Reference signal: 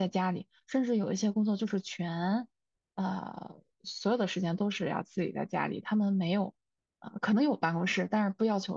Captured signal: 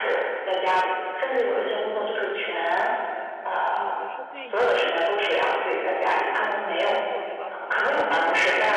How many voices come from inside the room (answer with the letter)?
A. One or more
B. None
A